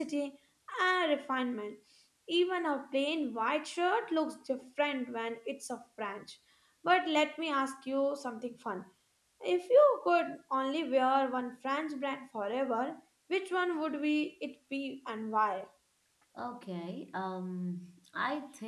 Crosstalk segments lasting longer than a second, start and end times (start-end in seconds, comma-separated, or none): none